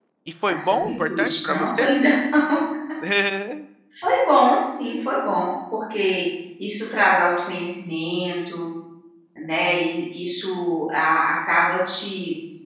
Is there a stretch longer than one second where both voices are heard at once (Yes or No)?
Yes